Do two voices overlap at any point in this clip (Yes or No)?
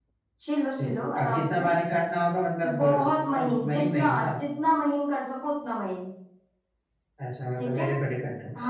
Yes